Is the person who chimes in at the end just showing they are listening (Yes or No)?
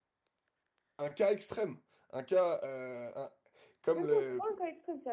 No